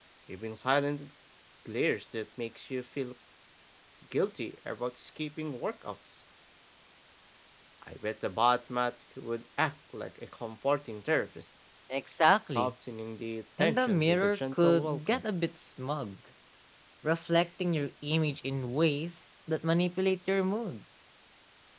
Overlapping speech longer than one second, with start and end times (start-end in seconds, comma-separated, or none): 13.6-15.2